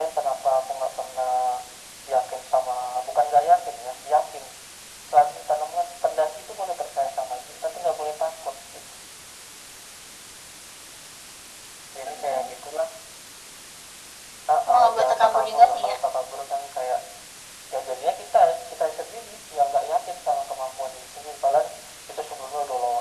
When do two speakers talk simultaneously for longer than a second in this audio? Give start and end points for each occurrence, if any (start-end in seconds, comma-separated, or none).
14.7-15.9